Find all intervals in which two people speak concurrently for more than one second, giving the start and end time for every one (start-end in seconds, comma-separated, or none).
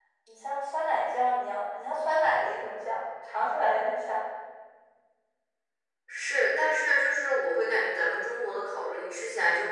none